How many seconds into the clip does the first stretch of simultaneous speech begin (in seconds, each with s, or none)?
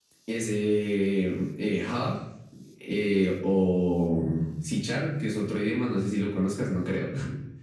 none